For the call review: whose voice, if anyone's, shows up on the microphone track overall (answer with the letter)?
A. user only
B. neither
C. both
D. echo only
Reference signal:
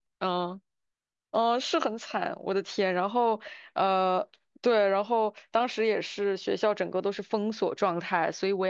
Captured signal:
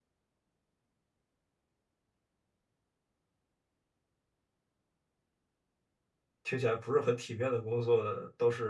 A